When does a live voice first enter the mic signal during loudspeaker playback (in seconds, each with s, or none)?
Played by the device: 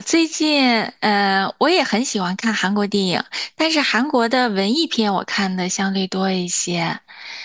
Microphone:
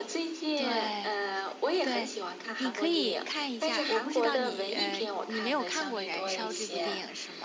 0.6 s